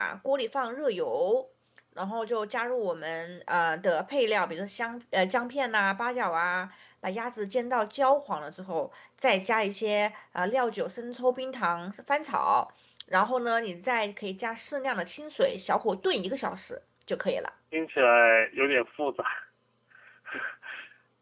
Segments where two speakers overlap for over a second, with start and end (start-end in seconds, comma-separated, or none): none